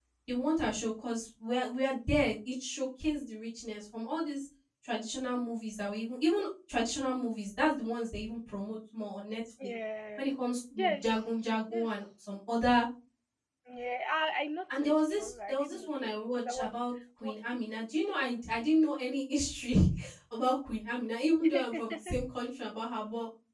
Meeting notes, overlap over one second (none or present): present